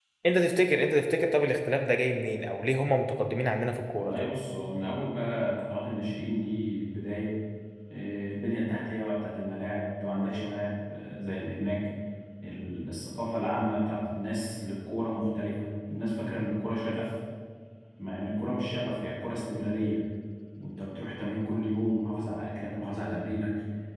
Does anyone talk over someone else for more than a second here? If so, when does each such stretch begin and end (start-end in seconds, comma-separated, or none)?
none